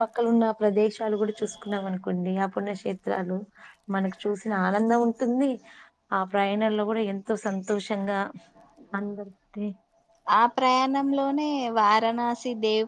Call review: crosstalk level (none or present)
none